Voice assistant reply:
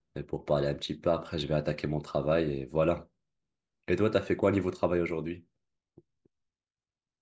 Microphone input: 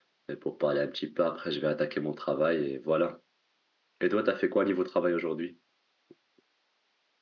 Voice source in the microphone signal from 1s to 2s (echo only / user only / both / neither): echo only